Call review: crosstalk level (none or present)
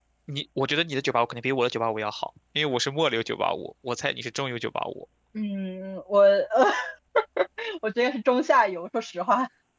none